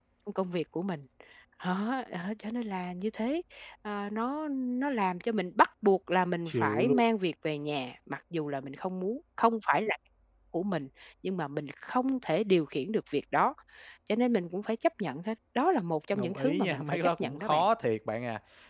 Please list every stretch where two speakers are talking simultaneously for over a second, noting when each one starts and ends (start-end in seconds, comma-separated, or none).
16.1-17.6